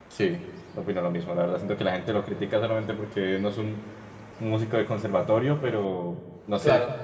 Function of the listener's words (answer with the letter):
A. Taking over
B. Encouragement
B